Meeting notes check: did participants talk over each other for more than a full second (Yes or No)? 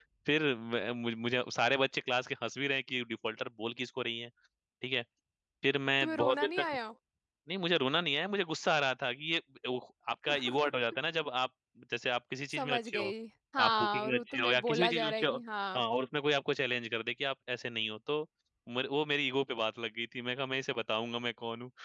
Yes